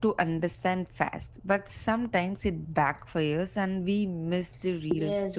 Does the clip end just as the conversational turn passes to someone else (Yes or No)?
Yes